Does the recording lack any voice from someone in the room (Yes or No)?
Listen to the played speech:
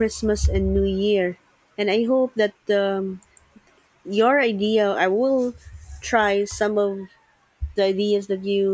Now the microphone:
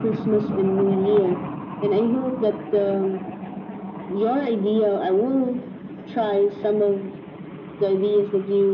Yes